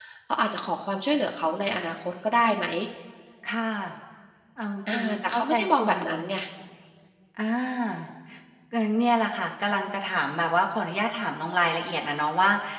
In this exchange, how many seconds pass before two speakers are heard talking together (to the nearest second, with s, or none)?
5 s